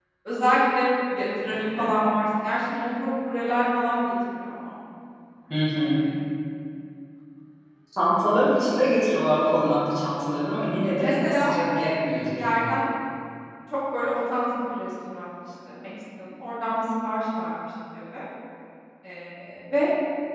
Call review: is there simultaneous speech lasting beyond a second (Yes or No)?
Yes